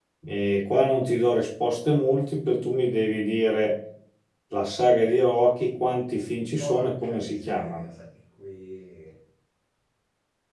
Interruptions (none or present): present